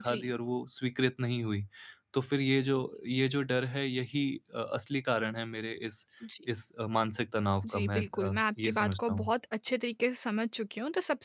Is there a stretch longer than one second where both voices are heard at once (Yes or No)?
Yes